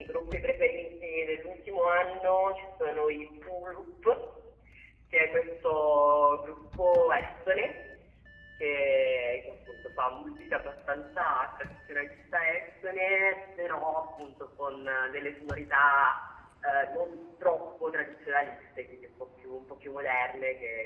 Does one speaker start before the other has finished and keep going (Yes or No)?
No